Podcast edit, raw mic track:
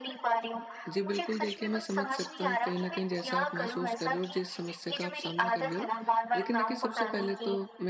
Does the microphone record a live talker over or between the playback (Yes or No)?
Yes